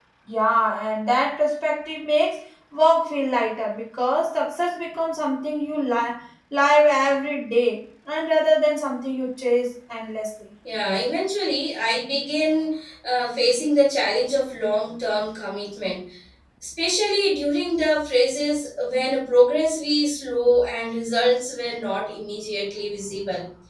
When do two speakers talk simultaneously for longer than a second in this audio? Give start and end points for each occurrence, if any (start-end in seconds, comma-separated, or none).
none